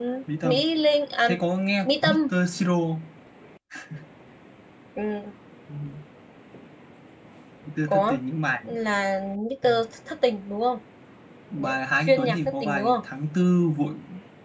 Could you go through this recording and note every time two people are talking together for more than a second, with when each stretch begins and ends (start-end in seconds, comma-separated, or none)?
11.6-13.0